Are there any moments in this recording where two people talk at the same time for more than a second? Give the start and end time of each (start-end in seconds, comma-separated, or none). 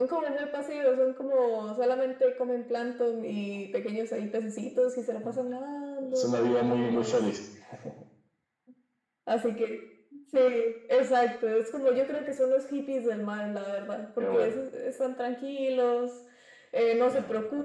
6.0-7.2